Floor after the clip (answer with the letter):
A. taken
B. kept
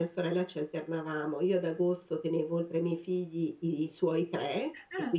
B